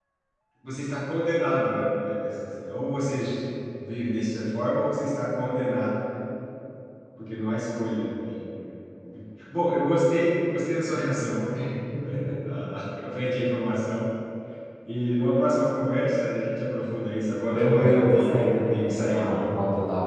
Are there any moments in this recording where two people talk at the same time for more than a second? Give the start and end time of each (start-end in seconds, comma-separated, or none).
17.5-19.5